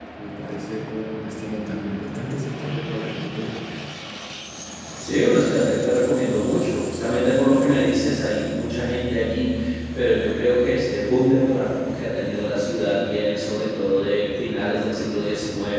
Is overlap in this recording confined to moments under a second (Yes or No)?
Yes